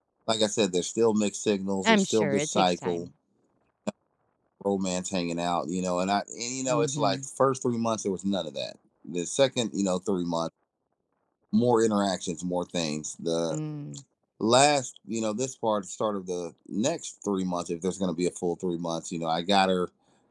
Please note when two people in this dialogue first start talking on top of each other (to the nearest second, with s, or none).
2 s